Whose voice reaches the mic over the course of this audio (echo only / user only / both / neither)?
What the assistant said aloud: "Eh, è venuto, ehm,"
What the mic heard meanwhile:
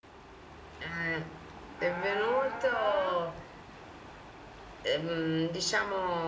both